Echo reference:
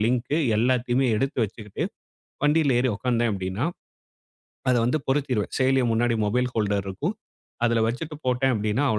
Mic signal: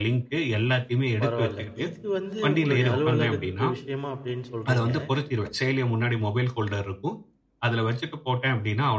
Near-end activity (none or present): present